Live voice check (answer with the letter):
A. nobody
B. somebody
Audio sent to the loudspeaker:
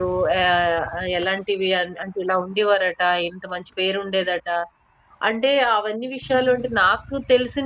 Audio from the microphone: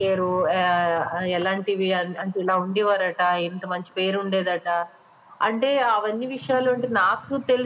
A